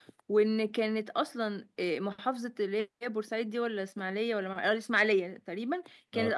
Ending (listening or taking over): listening